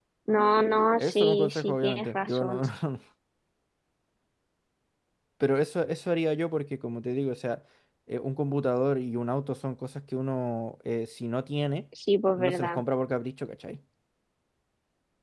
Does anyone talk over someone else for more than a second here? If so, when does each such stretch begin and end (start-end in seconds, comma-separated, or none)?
1.0-2.6